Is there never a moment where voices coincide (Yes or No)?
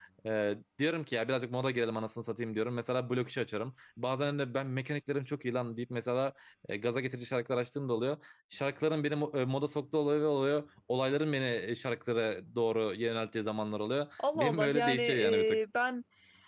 No